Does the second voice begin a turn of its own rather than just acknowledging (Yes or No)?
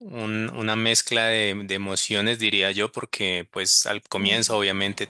No